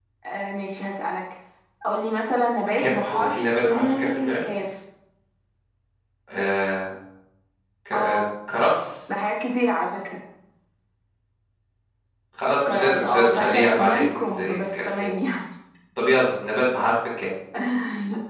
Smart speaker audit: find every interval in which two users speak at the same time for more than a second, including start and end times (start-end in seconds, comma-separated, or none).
2.8-4.4, 12.7-15.1